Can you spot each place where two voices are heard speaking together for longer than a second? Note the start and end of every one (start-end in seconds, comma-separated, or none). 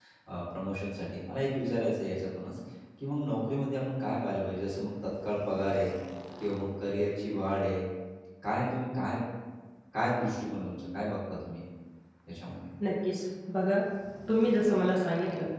none